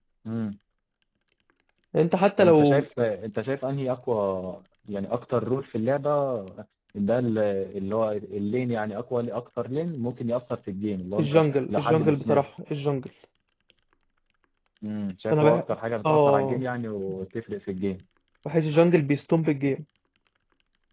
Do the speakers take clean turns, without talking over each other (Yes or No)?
No